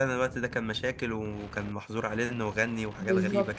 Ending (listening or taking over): taking over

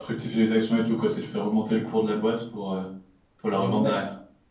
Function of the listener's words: taking over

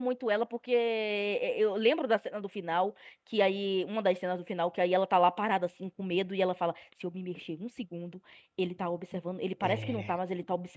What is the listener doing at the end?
listening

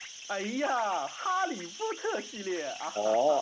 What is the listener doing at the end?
taking over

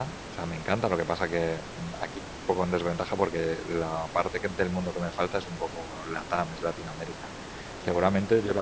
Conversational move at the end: listening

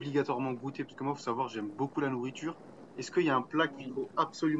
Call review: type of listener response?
listening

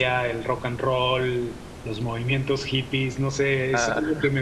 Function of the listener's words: listening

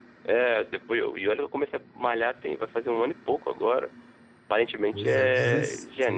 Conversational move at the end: taking over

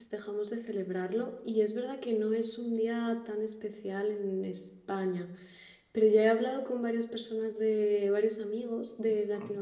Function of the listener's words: listening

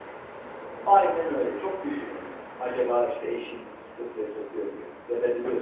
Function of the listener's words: listening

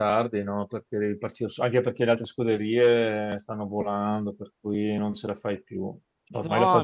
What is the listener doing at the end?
listening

